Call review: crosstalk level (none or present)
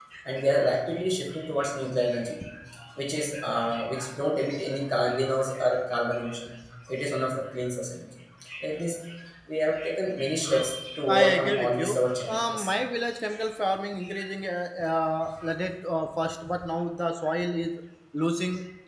present